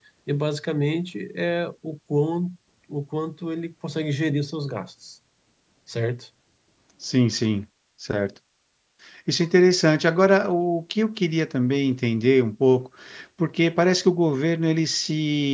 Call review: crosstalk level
none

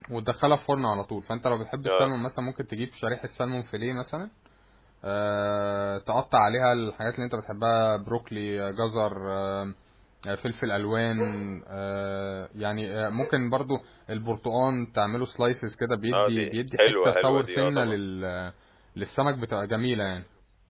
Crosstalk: present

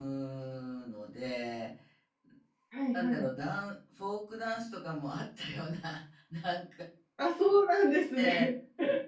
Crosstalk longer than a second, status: none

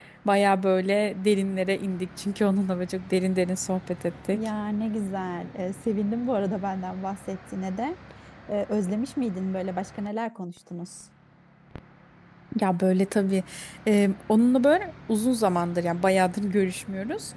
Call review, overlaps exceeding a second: none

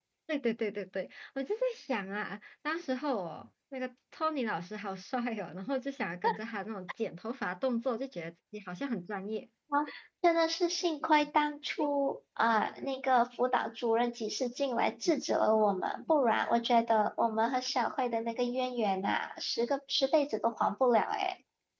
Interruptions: none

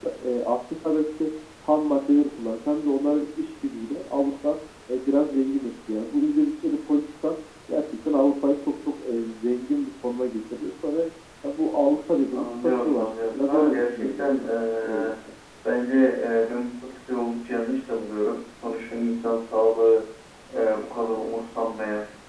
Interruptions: present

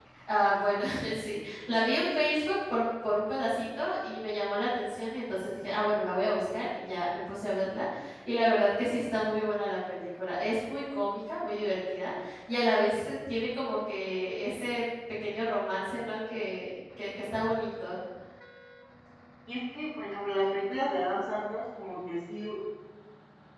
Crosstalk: none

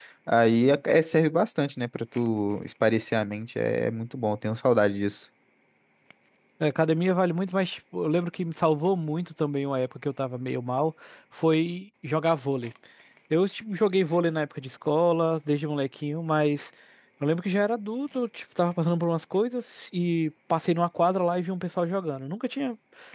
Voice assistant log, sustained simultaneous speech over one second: none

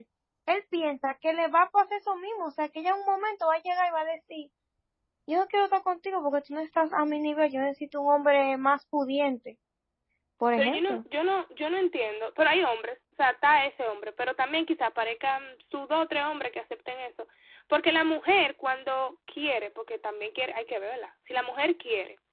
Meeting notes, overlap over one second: none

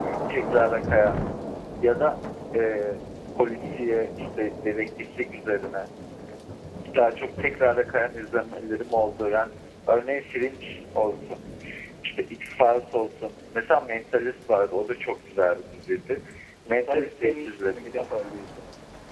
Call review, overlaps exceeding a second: present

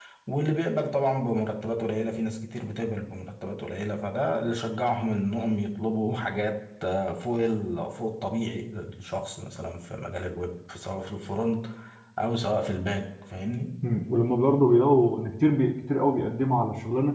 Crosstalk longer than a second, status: none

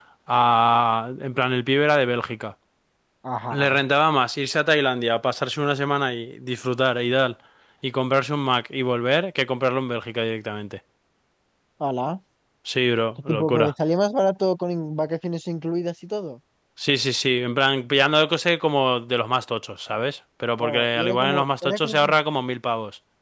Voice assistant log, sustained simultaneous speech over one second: present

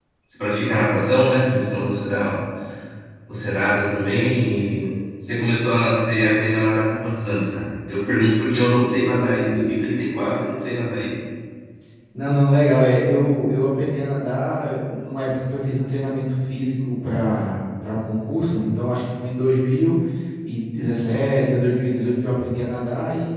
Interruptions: none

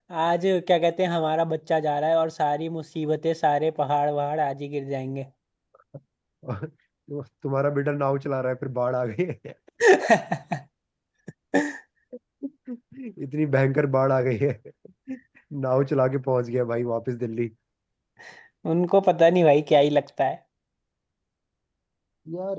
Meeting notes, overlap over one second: none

